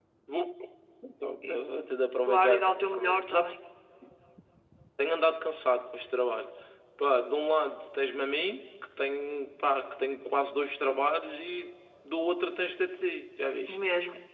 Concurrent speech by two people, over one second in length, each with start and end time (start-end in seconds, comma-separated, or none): 2.2-3.5